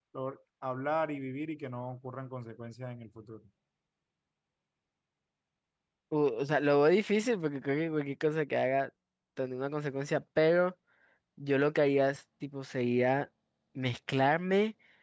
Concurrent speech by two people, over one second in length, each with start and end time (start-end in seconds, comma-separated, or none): none